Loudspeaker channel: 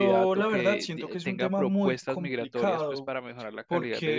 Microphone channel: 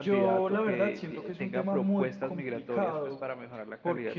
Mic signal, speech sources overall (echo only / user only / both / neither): echo only